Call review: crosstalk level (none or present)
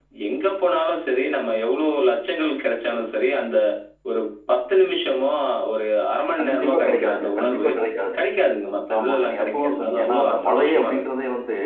present